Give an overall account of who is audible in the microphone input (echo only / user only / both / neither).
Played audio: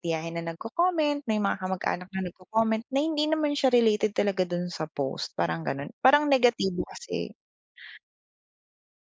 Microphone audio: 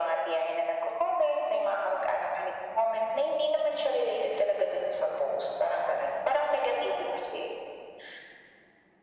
echo only